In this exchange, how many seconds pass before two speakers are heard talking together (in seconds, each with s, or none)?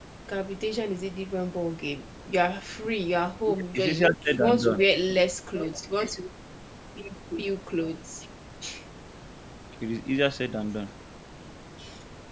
3.5 s